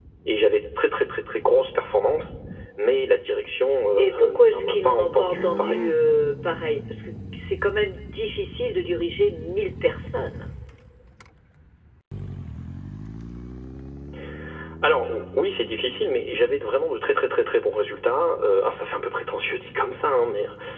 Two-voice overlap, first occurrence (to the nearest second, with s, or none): 4 s